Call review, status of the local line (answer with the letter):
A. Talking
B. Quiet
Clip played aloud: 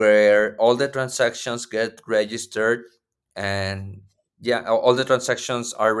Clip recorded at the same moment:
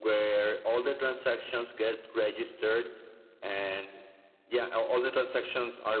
B